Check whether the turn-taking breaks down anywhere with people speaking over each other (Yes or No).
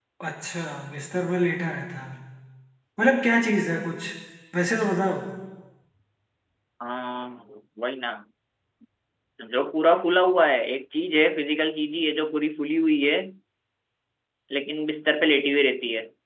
No